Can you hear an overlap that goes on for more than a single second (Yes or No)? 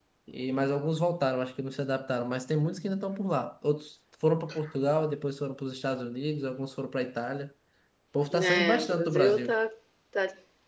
Yes